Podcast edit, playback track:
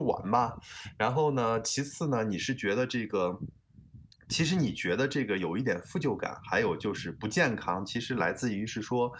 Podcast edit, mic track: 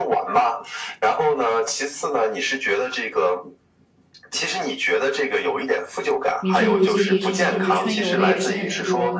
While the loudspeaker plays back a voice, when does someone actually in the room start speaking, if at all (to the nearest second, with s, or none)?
6 s